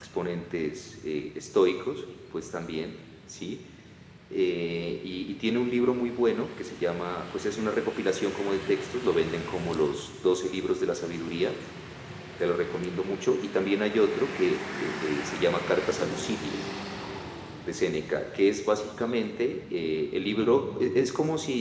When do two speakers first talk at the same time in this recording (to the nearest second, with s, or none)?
none